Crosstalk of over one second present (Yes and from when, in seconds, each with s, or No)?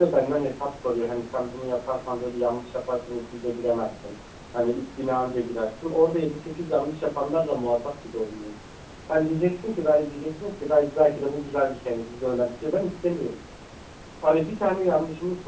No